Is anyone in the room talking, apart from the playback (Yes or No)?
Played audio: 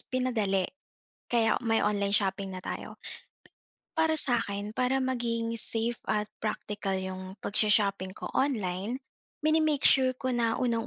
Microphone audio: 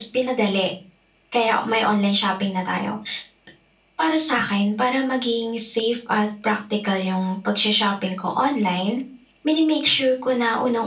No